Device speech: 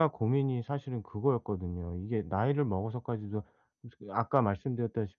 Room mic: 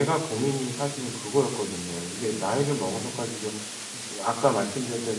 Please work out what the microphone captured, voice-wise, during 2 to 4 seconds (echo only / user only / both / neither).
echo only